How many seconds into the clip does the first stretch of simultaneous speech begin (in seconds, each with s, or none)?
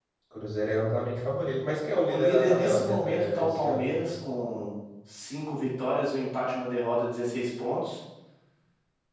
2.0 s